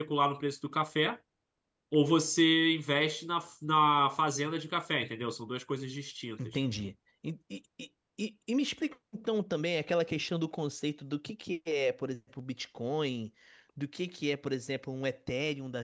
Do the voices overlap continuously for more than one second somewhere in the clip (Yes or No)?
No